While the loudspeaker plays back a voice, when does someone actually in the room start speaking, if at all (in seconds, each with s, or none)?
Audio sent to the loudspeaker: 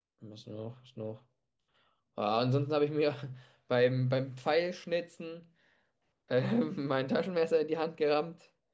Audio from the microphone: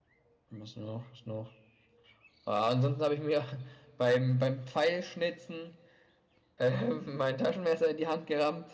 none